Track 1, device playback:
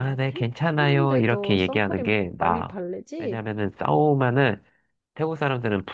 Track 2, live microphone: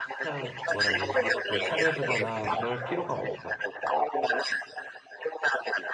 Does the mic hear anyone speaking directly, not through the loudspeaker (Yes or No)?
Yes